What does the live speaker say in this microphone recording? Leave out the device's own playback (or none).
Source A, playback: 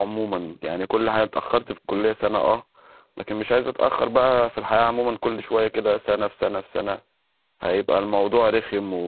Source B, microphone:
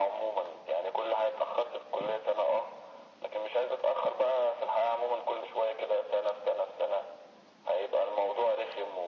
none